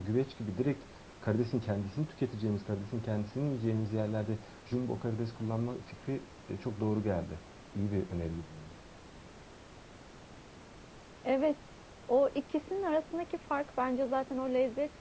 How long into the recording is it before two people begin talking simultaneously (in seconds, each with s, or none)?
none